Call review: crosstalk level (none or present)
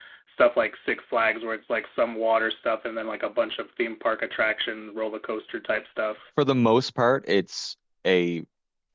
none